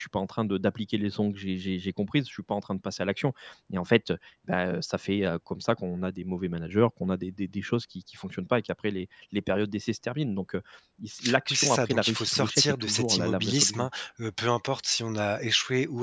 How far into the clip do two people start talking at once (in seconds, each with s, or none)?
11.5 s